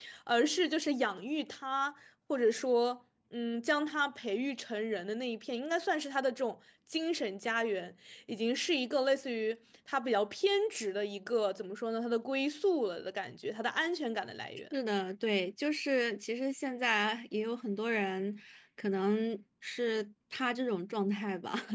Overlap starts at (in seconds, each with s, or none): none